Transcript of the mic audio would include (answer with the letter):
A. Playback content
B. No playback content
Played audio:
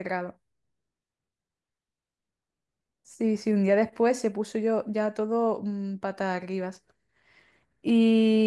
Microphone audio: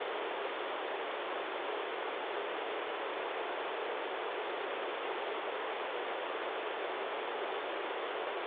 B